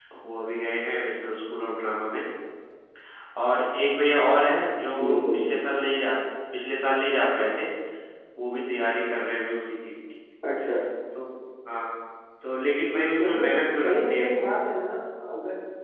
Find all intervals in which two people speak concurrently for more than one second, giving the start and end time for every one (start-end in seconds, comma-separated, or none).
13.2-14.4